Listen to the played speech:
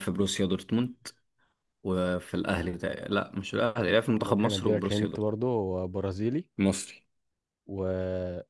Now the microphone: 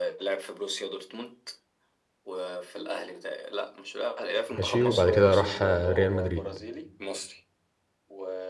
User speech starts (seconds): 4.6 s

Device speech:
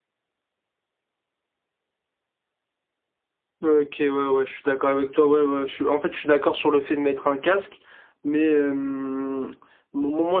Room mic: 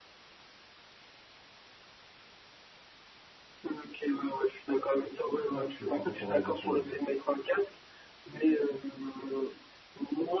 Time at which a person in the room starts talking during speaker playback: 5.3 s

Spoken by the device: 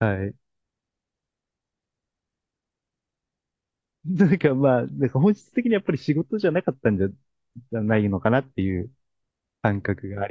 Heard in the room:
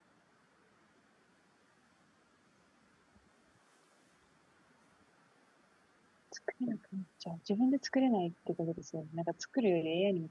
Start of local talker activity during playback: 6.3 s

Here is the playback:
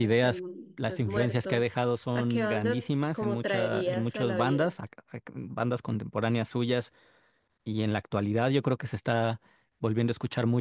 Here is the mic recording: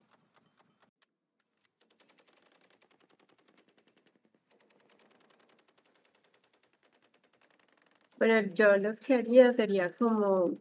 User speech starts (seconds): 8.2 s

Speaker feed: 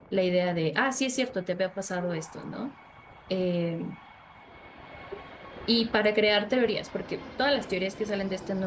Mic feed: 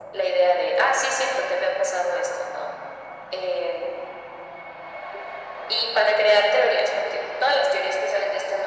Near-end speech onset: none

